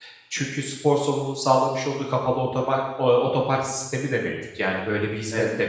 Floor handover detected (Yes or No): No